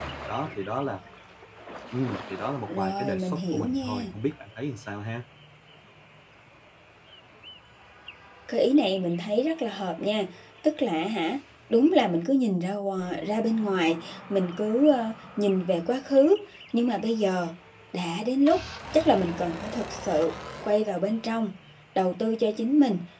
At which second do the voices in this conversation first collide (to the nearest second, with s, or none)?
3 s